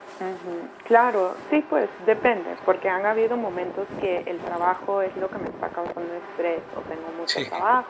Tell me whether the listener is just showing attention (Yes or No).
Yes